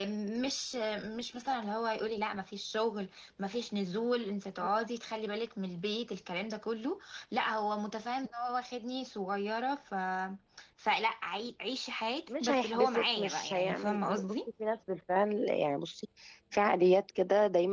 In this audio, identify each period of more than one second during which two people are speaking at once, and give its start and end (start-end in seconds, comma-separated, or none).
12.3-14.4